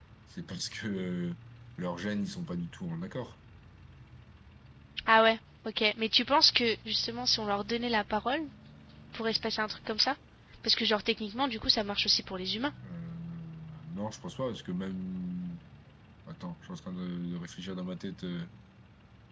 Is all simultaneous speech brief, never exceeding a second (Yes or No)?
Yes